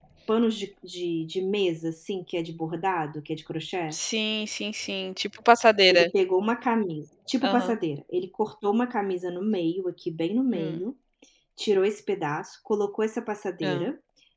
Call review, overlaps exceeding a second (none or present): none